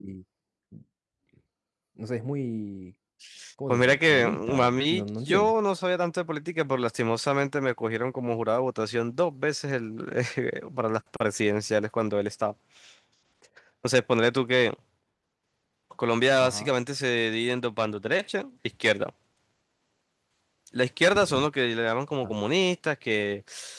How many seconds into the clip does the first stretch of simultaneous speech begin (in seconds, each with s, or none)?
3.7 s